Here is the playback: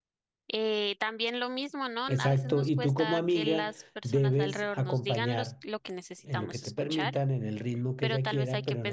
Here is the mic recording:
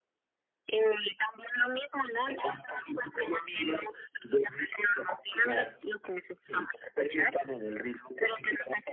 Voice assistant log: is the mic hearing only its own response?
Yes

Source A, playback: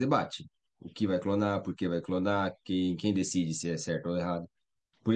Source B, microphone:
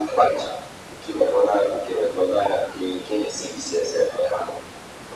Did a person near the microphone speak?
No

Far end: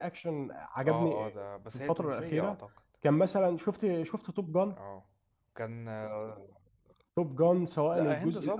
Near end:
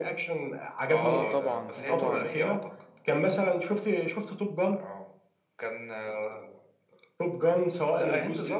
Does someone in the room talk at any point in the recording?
Yes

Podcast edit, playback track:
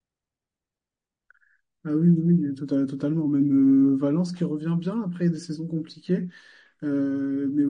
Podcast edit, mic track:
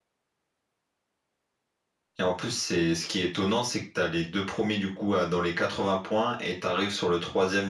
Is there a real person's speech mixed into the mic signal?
Yes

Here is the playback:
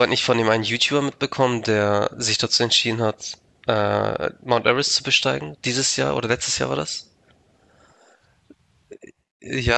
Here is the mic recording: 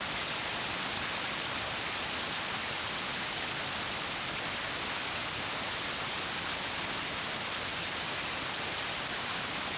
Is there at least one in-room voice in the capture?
No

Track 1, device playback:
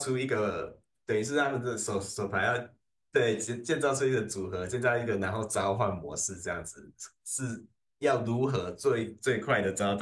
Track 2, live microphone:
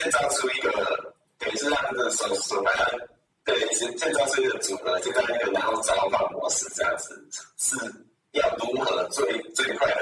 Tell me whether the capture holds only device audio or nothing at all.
Yes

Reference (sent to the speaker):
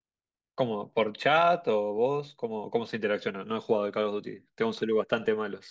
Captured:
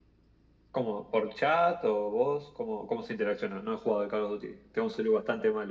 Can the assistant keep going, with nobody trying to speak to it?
Yes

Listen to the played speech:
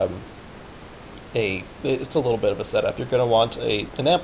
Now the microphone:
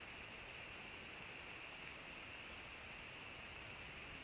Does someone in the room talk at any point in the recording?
No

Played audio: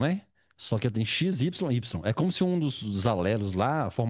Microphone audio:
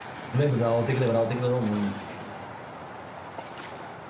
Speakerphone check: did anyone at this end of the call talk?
Yes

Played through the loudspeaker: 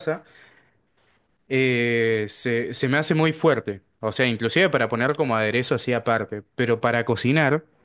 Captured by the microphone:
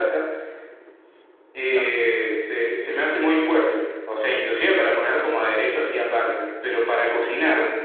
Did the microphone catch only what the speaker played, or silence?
No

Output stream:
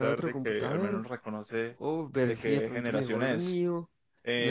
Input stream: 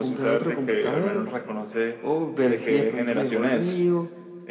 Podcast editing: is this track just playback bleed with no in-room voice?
Yes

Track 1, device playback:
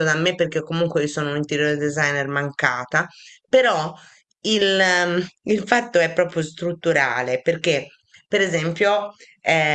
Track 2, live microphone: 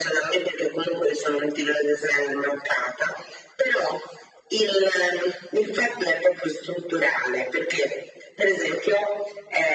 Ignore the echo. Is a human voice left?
No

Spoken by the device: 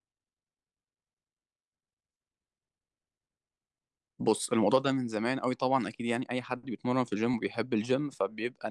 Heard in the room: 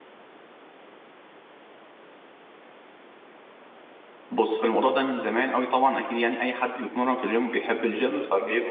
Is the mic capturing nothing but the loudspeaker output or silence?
No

